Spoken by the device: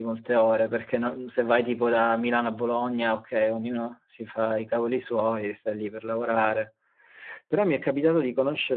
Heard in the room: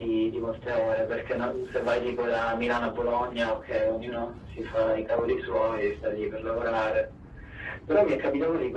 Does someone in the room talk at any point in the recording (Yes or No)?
No